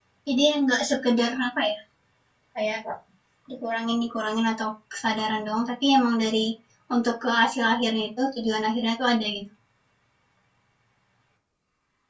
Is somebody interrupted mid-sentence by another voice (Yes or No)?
No